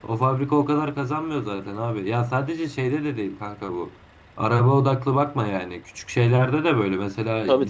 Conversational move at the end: listening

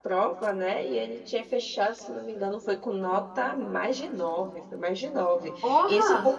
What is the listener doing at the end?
listening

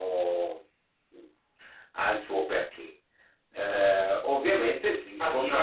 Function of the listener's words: taking over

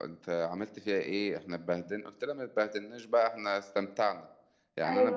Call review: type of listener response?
listening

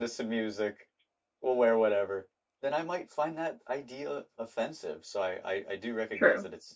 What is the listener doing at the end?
listening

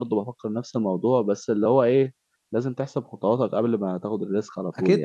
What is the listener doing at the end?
taking over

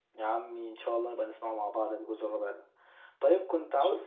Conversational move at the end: listening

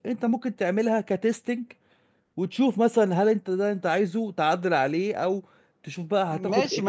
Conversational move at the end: taking over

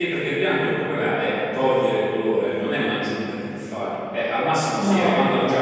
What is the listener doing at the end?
listening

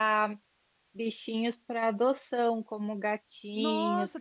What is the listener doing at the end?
taking over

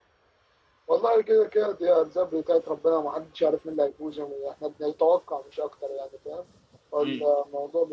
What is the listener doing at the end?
listening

